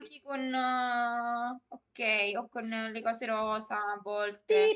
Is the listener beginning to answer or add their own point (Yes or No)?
Yes